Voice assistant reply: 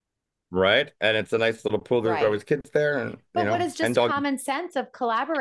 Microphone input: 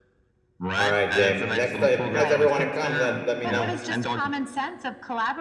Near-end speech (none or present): present